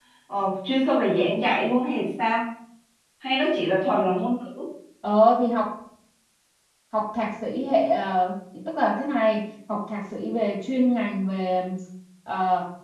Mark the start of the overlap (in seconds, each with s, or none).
none